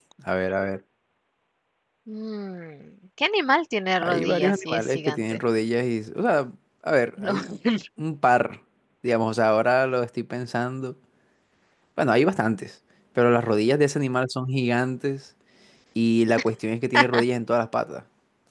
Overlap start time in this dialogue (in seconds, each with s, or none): 4.0 s